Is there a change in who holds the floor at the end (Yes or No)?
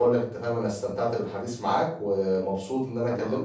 No